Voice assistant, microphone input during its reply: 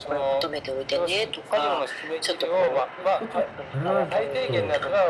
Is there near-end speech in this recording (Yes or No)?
Yes